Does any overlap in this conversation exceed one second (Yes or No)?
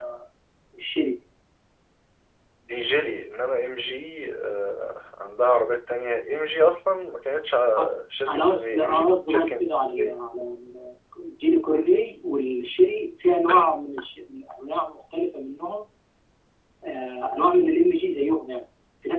Yes